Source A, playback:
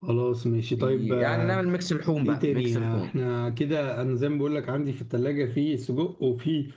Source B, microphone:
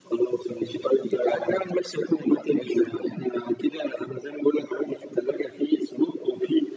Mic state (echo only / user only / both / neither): echo only